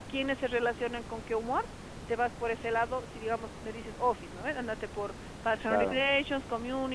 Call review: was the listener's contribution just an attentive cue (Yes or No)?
Yes